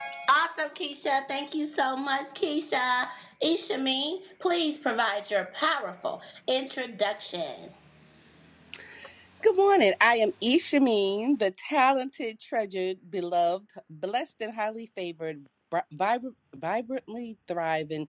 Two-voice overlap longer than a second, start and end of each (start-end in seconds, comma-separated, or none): none